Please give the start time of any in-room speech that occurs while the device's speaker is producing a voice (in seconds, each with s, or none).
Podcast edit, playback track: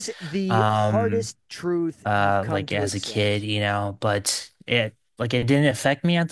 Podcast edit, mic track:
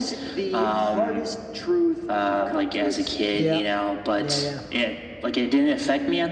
3.3 s